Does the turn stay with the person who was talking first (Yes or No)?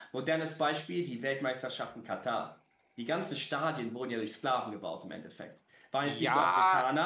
No